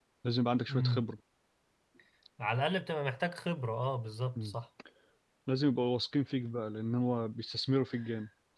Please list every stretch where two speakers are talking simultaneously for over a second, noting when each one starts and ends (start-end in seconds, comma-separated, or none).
none